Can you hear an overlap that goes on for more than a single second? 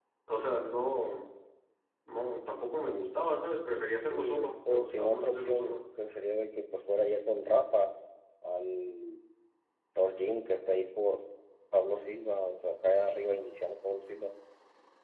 Yes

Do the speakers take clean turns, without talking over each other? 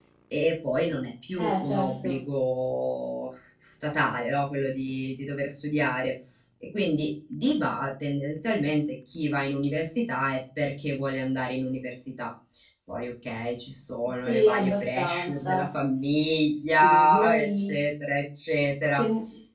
No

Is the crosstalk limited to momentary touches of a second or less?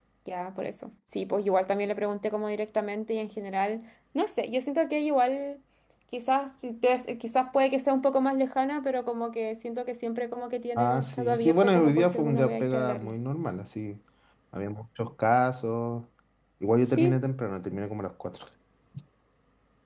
No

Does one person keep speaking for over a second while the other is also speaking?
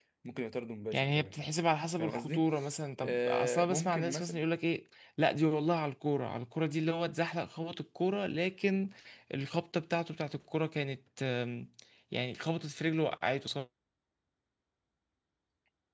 Yes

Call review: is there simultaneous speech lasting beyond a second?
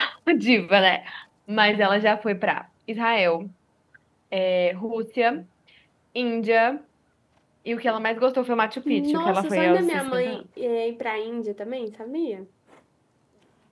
Yes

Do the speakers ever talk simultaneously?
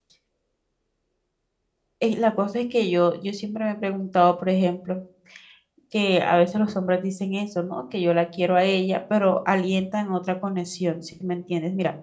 No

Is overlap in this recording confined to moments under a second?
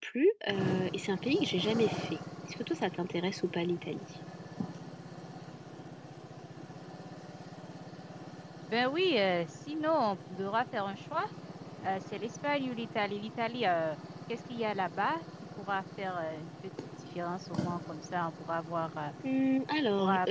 Yes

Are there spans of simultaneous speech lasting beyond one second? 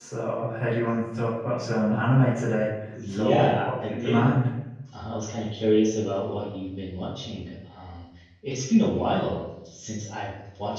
Yes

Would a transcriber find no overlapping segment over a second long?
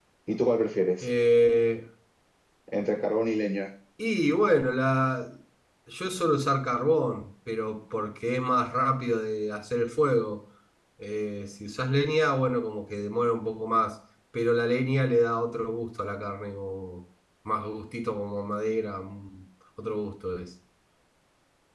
Yes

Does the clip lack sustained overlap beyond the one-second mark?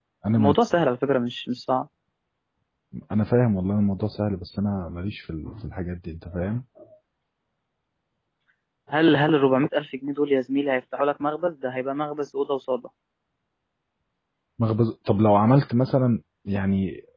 Yes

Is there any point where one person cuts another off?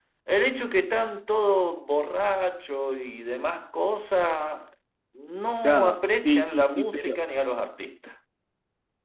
Yes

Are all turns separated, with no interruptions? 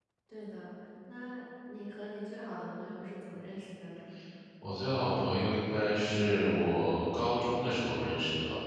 Yes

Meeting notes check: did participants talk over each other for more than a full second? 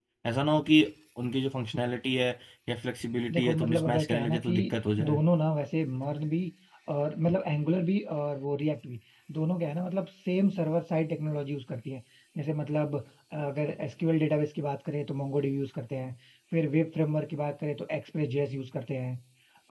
Yes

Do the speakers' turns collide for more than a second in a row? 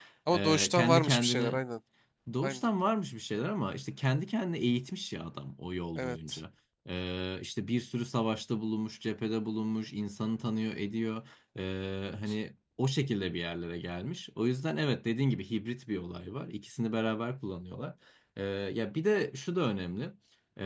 Yes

